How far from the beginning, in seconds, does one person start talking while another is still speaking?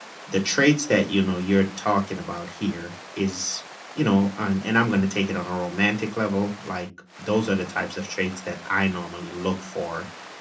none

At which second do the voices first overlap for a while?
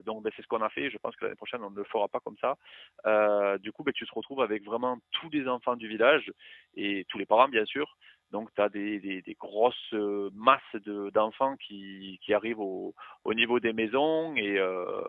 none

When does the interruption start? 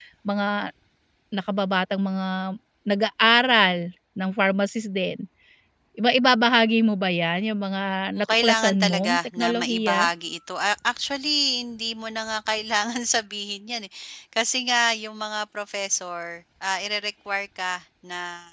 8.2 s

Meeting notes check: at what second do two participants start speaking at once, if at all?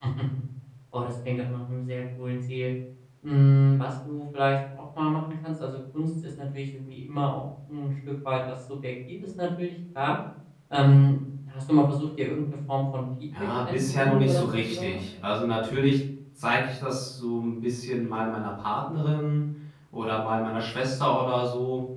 13.3 s

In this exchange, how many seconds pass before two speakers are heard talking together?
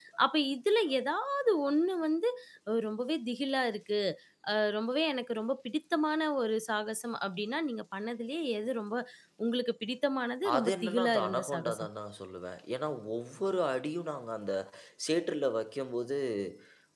10.4 s

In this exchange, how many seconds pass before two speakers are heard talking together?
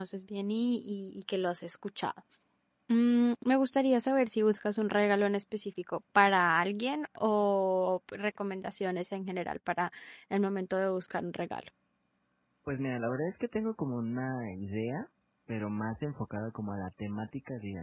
none

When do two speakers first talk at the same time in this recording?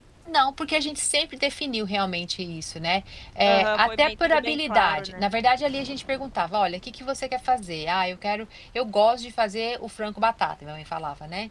3.4 s

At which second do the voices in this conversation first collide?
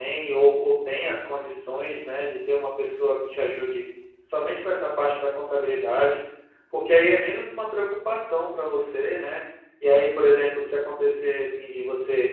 none

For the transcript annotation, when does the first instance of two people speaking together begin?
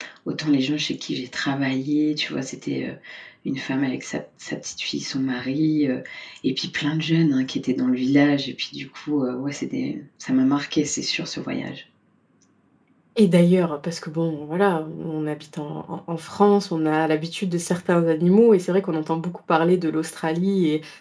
none

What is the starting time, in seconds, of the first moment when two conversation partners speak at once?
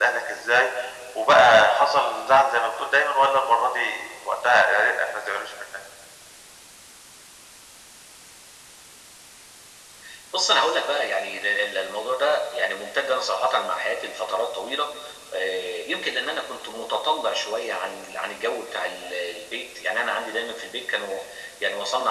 none

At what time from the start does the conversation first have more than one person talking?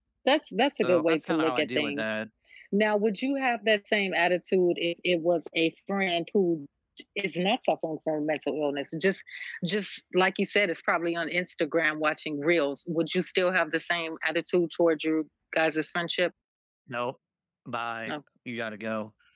0.8 s

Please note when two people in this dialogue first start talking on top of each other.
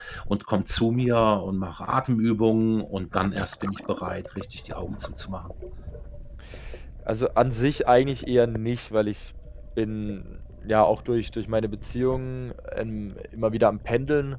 none

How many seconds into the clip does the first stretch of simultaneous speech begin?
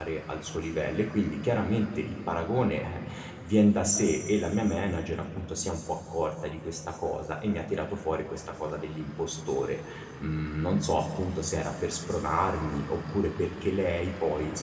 none

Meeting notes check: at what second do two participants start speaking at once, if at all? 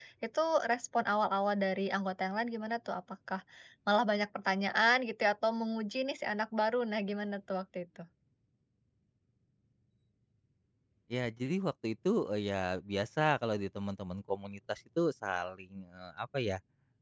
none

